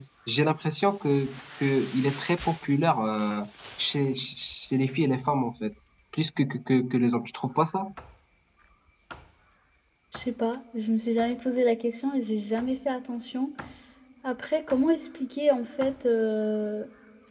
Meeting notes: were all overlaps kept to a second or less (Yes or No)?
Yes